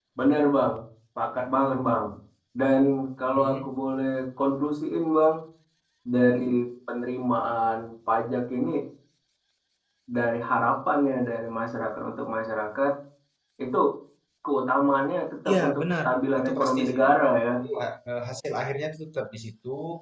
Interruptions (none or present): present